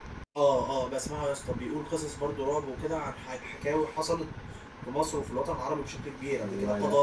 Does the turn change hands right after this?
No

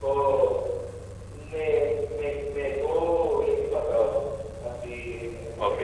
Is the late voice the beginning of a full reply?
Yes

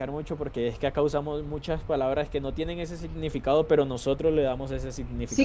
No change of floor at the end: No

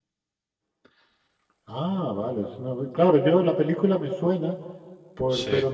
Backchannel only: Yes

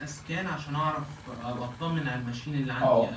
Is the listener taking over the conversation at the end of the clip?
Yes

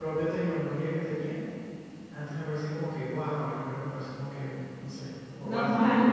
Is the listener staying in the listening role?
No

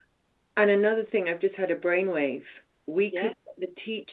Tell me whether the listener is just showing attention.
Yes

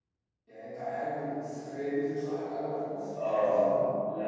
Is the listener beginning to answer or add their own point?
Yes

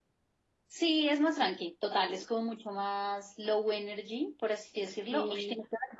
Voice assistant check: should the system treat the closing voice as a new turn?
No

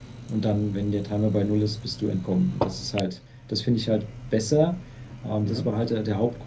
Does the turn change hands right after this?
No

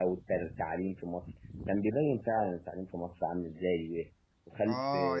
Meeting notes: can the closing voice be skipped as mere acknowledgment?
No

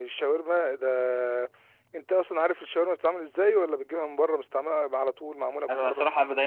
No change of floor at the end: No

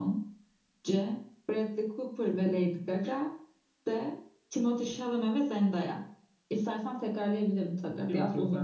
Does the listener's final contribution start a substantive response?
Yes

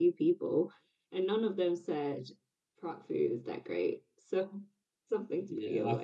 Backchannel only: No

